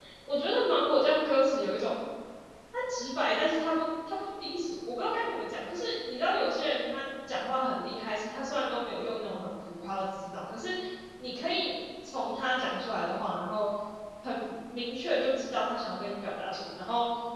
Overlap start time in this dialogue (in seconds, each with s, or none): none